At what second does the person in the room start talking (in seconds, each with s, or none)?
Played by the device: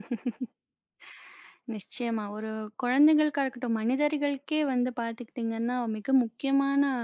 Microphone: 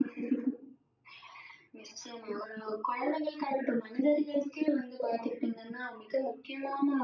none